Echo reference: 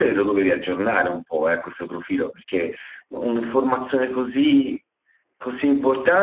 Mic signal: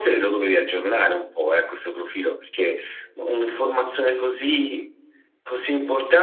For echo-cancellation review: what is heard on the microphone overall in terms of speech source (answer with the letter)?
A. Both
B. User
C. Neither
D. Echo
D